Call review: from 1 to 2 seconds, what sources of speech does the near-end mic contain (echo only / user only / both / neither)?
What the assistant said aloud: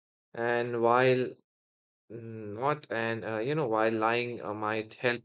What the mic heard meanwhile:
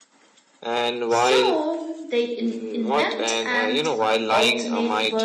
both